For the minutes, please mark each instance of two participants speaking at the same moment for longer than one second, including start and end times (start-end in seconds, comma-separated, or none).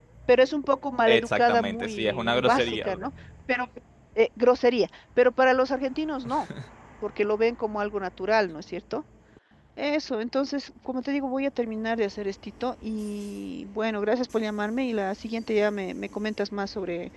1.1-3.0